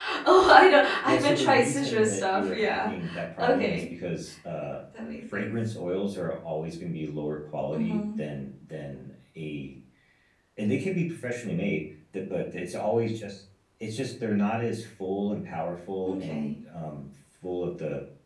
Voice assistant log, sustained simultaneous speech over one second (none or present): present